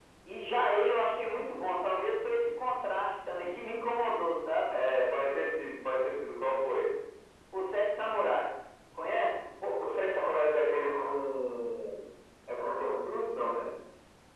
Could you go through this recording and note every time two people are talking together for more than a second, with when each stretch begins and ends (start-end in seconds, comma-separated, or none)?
none